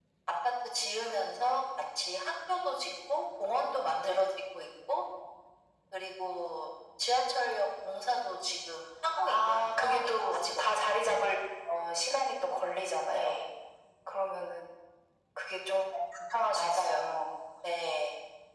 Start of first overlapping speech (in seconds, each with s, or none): 9.3 s